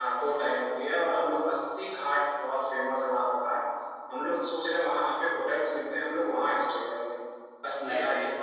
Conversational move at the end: listening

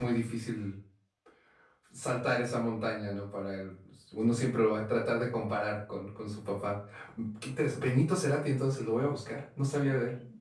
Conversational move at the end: taking over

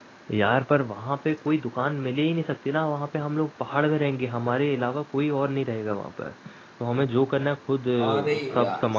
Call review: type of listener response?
listening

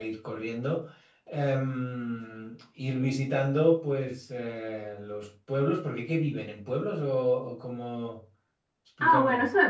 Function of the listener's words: taking over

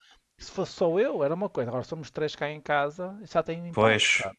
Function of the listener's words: taking over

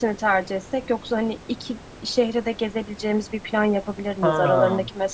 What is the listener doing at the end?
listening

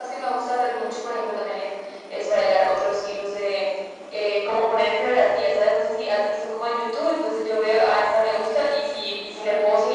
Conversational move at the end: listening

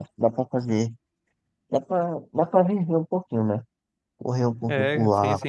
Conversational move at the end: taking over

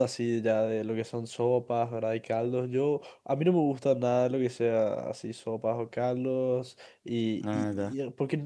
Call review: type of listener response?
listening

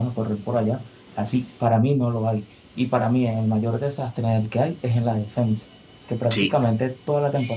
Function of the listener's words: listening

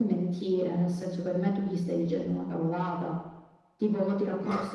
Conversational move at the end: listening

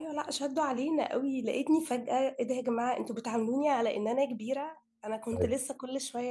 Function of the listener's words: listening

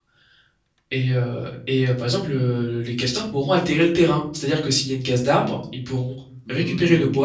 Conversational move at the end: taking over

